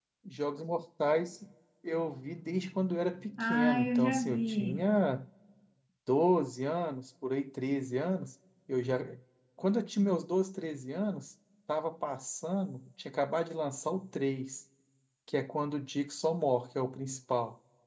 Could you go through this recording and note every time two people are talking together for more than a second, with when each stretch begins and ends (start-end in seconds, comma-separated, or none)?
3.4-4.9